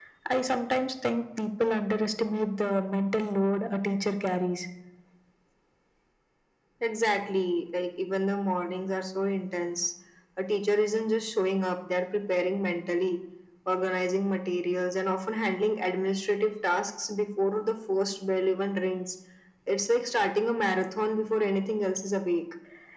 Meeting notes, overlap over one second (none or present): none